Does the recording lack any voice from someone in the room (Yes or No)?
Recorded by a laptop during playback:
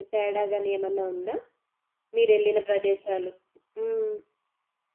No